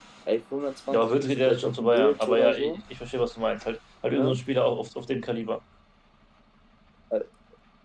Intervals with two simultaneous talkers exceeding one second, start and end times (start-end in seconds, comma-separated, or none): 0.9-2.8